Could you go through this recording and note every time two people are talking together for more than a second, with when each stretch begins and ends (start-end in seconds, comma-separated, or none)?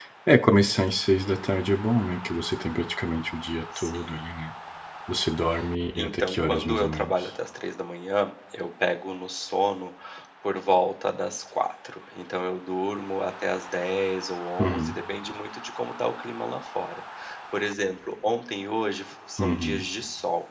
6.0-7.3